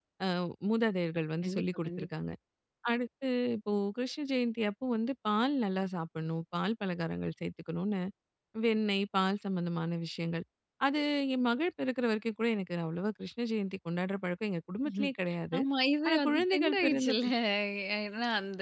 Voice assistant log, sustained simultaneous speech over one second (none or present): present